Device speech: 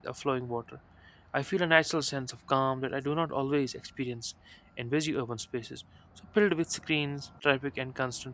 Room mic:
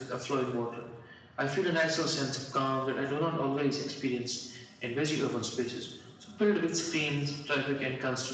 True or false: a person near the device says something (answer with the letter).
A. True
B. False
B